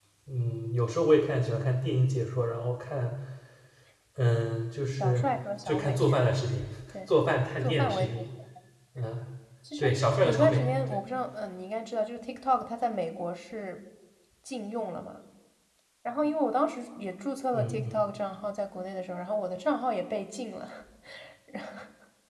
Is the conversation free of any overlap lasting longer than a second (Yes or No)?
No